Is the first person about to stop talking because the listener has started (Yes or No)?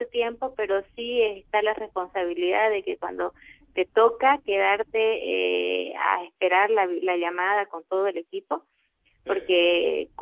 No